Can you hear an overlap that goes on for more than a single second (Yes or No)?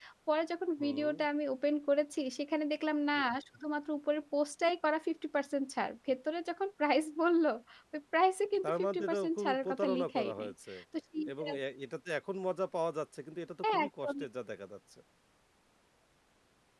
Yes